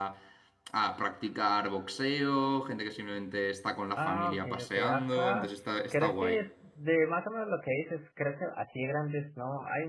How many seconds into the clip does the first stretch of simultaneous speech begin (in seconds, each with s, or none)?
4.0 s